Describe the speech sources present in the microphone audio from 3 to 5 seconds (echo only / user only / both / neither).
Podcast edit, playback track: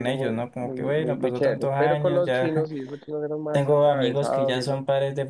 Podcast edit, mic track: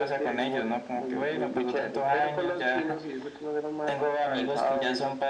echo only